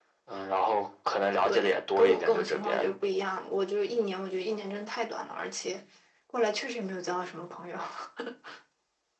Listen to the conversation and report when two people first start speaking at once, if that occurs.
1.4 s

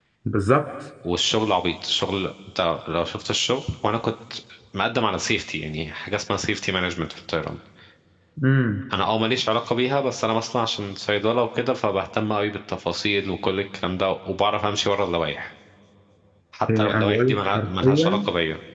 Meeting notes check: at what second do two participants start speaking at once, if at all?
16.8 s

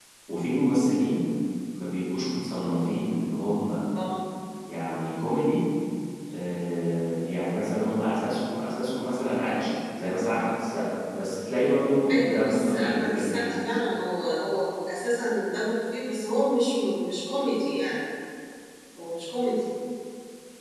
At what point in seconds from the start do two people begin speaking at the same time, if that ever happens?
12.1 s

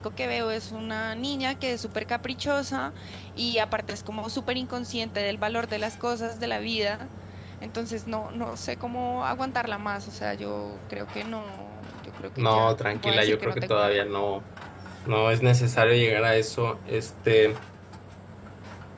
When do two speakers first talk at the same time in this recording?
12.4 s

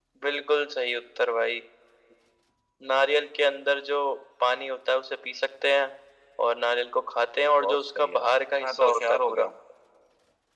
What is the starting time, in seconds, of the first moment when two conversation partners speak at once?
7.6 s

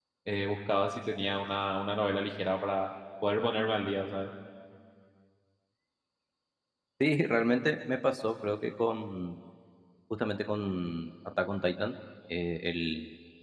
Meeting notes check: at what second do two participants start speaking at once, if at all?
none

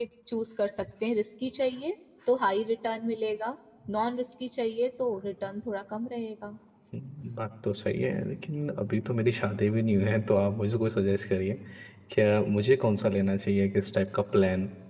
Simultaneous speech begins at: none

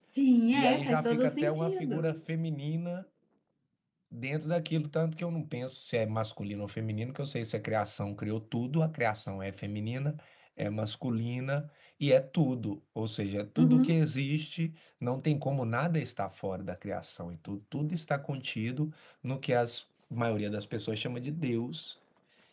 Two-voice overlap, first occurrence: 0.5 s

